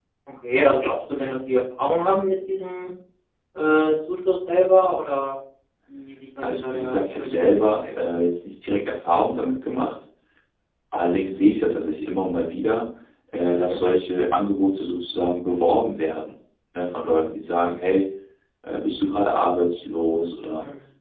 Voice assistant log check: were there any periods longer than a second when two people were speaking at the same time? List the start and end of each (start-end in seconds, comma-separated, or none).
6.4-8.1